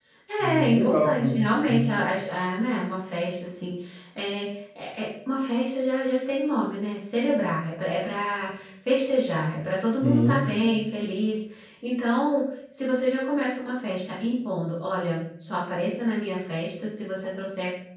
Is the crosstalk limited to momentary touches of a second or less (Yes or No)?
No